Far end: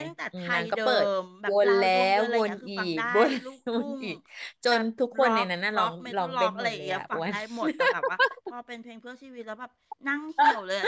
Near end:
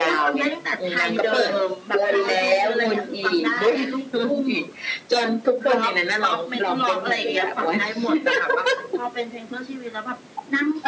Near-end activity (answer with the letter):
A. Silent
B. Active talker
A